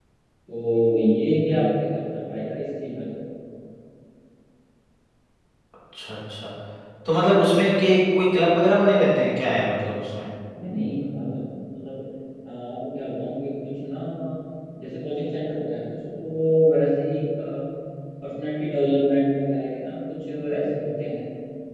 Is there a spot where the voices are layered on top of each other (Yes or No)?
No